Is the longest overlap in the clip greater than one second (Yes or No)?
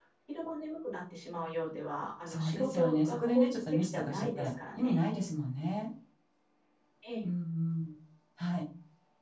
Yes